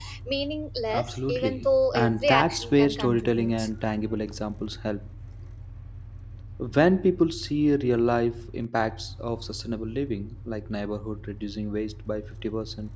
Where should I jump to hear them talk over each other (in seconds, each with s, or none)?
0.9 s